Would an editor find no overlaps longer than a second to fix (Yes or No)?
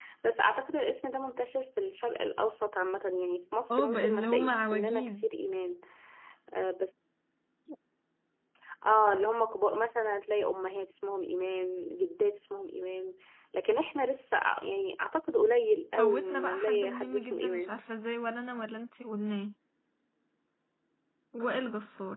No